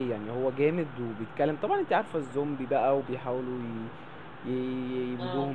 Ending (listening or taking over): listening